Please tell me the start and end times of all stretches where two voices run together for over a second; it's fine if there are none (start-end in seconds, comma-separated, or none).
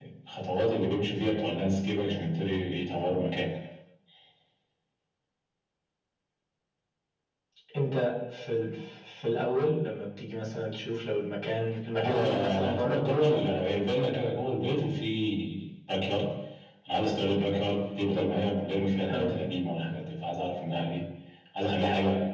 12.0-13.4